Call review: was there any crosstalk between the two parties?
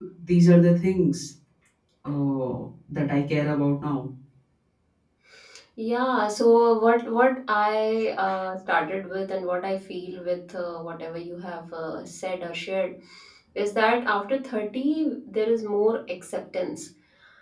No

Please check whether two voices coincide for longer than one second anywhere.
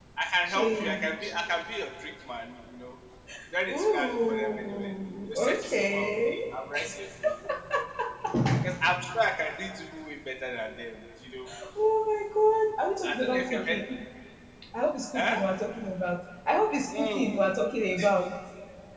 Yes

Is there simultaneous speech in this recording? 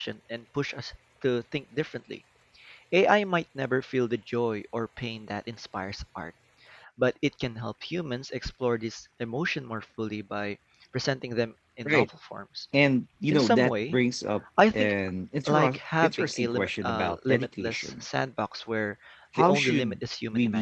Yes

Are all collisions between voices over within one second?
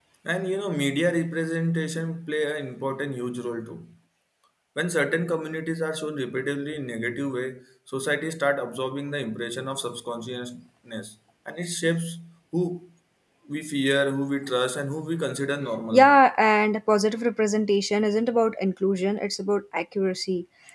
Yes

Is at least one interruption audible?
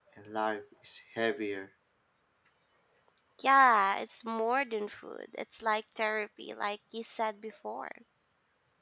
No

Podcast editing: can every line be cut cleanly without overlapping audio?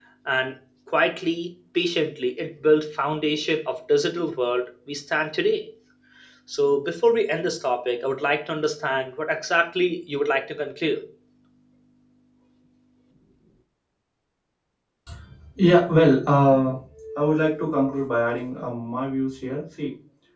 Yes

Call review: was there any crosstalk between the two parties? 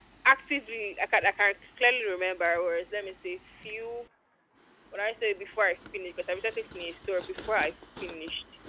No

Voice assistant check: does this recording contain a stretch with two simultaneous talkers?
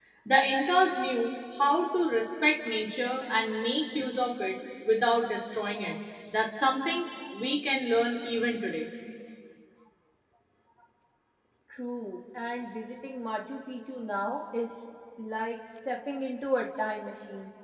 No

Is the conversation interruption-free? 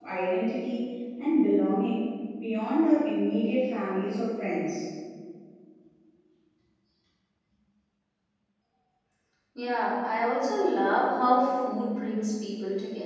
Yes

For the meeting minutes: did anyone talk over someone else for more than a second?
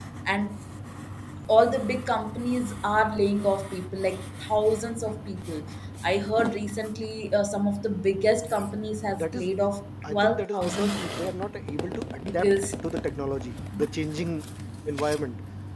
Yes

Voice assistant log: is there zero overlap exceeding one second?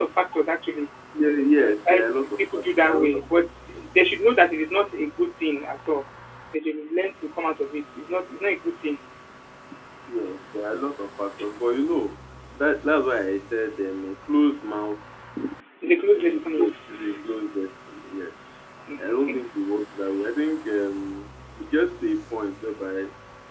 No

